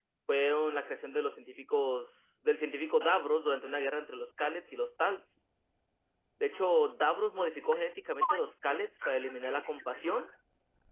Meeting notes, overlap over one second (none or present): present